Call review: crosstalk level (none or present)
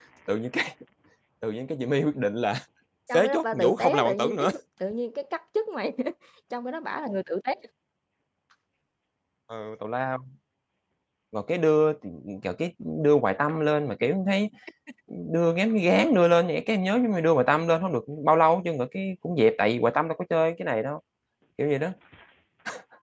present